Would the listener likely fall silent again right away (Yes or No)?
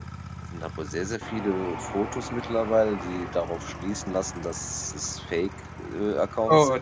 No